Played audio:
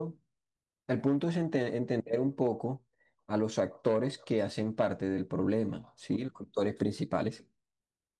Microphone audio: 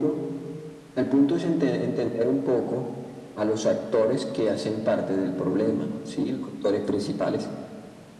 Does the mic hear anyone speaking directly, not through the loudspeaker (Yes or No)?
No